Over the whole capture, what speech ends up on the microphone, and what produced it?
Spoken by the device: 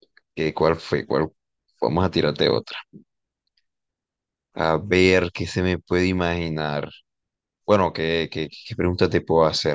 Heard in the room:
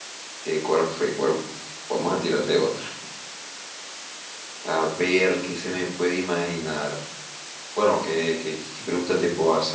echo only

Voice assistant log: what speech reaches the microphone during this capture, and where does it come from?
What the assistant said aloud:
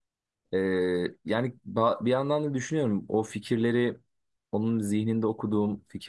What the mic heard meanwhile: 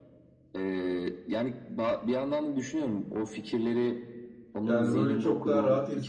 both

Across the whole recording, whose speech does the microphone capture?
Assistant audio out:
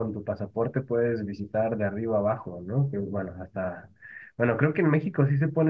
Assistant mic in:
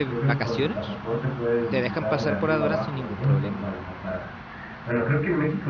both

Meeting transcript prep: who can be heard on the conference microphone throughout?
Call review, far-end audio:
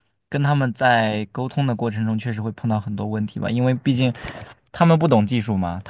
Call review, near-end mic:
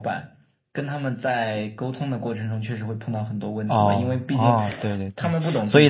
both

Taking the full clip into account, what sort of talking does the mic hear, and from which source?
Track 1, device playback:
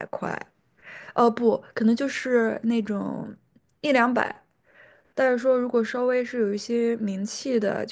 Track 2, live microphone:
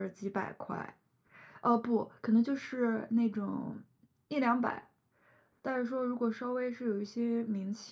echo only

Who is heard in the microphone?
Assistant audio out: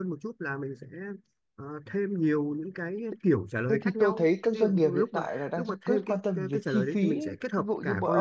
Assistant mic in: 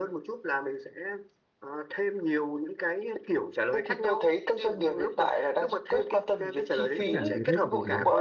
both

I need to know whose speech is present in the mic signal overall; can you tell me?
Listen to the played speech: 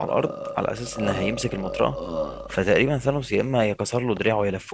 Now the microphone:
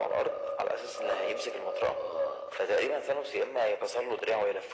echo only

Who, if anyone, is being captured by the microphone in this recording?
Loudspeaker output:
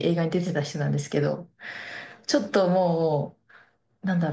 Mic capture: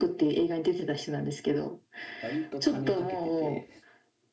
both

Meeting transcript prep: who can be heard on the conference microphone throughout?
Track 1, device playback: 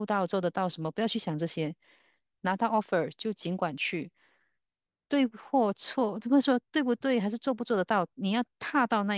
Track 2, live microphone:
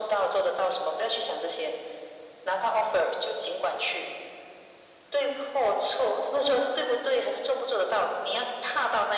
echo only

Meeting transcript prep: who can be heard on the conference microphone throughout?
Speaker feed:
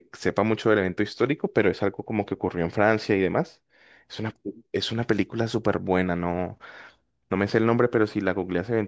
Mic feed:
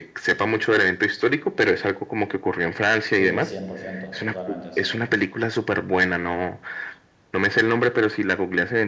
both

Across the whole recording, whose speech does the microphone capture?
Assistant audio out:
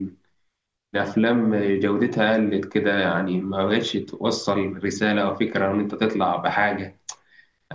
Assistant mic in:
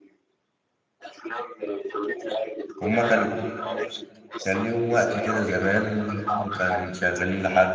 both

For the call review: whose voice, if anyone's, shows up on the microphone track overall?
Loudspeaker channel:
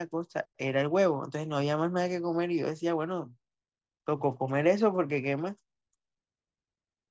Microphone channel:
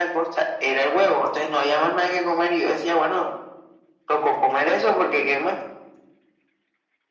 echo only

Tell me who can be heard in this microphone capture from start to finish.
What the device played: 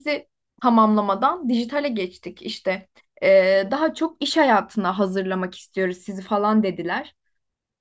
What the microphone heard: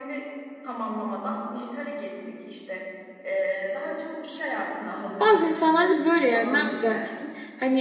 both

